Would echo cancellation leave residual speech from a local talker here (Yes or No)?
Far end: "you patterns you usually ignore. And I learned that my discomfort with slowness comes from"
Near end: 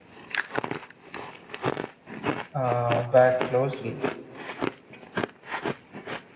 Yes